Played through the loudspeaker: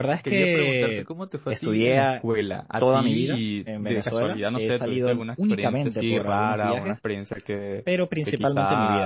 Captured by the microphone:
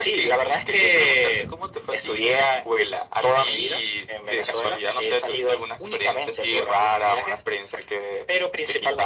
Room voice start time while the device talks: none

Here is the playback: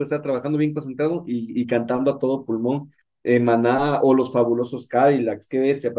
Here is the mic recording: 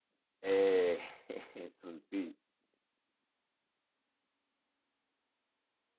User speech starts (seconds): 0.4 s

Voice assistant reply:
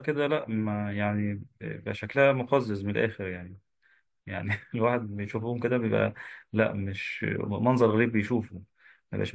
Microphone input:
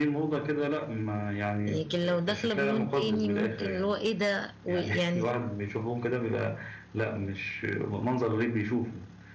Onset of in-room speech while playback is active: 1.7 s

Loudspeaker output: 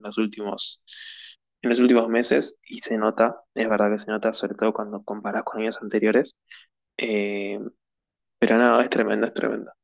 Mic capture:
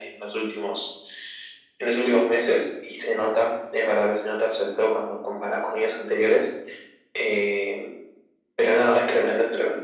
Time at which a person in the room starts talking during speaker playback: none

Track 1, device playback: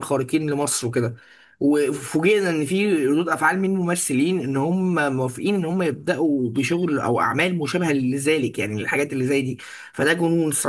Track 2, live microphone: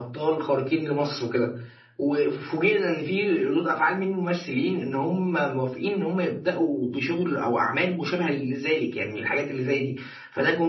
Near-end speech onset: none

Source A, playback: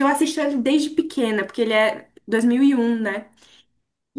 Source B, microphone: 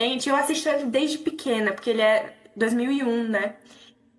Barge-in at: none

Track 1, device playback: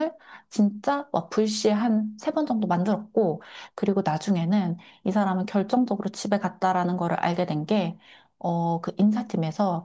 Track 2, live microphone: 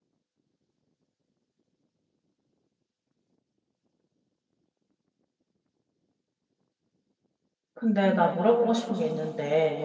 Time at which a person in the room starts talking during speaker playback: 7.7 s

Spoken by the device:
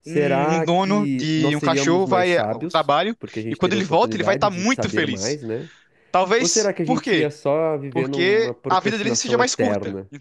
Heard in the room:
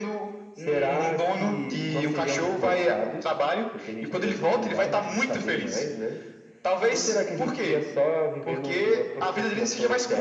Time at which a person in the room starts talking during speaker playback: none

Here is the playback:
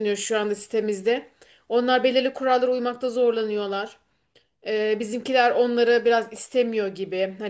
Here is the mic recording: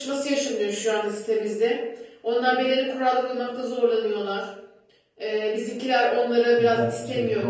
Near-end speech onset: 6.6 s

